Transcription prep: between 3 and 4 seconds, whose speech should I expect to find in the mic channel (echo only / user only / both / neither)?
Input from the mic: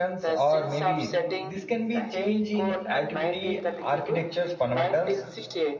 both